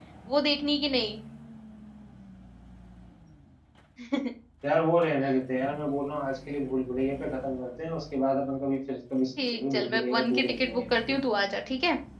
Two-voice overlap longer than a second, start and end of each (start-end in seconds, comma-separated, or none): 9.4-11.2